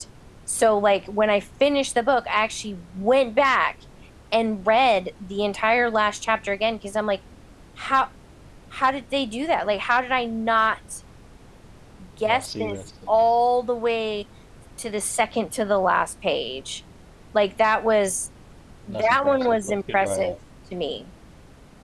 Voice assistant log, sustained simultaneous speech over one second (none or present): present